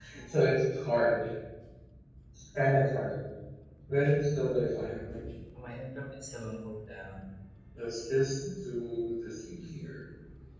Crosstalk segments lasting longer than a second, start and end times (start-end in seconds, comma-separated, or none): none